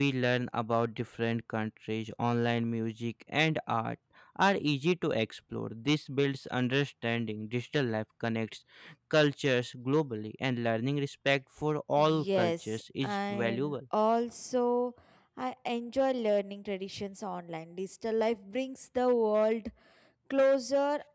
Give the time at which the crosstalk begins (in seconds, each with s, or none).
12.0 s